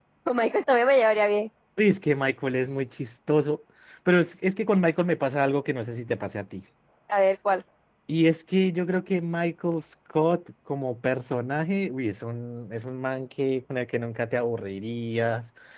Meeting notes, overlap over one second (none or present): none